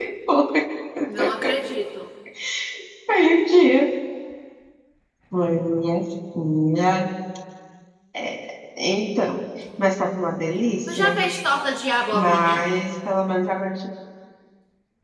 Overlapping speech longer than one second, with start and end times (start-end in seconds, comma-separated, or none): none